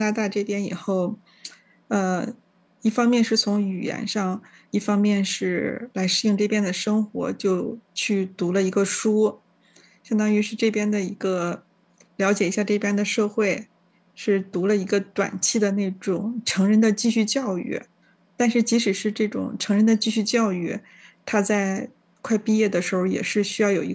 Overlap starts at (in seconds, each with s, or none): none